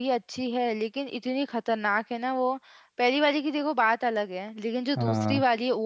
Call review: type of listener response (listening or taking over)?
listening